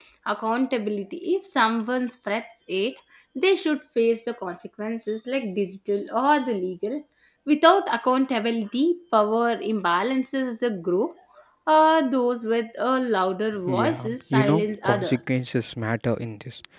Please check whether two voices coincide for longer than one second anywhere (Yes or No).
Yes